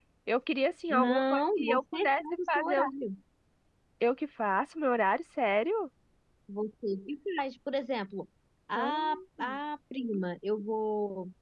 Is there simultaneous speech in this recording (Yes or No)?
Yes